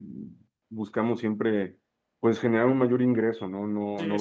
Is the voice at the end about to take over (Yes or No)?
Yes